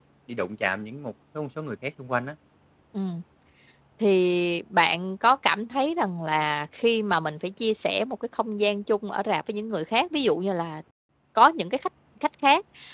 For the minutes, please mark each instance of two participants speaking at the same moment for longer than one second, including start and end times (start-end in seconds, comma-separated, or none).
none